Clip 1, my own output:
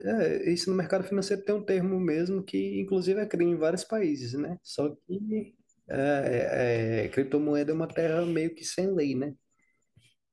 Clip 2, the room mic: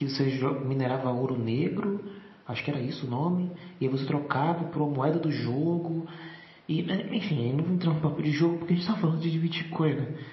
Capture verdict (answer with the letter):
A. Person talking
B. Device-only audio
A